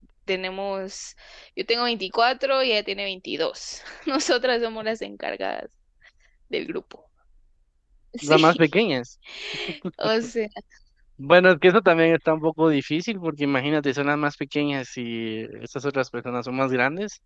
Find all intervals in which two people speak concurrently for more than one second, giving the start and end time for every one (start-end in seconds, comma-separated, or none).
none